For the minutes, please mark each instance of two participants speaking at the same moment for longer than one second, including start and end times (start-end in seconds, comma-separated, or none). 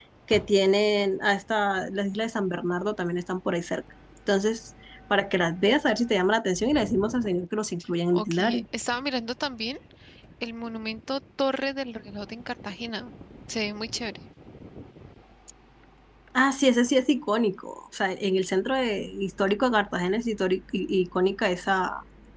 none